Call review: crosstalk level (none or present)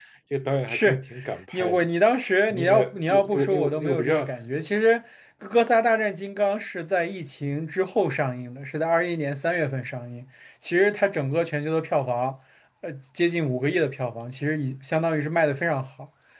present